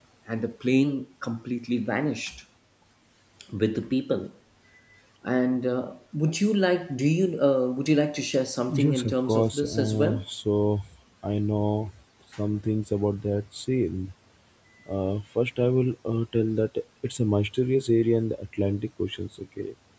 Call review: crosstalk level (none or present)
present